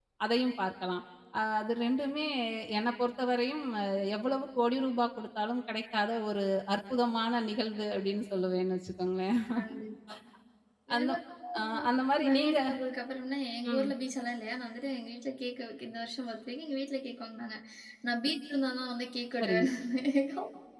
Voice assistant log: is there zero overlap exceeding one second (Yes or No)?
Yes